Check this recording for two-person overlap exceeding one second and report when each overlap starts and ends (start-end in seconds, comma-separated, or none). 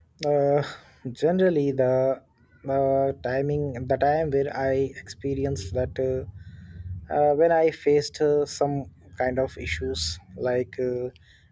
none